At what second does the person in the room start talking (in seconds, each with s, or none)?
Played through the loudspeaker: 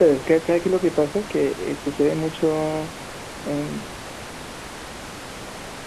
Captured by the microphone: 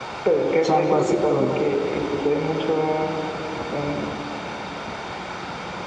0.6 s